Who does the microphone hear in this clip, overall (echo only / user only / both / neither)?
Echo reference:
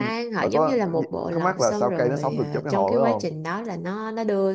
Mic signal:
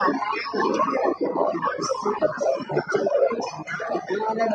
echo only